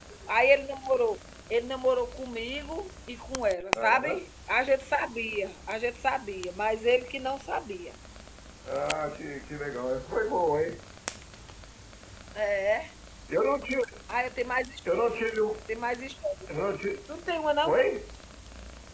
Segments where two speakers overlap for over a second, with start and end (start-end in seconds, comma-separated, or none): none